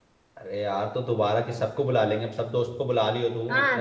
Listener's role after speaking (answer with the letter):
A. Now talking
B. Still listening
A